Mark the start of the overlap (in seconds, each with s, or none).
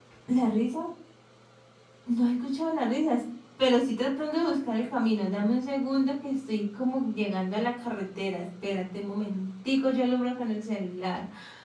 none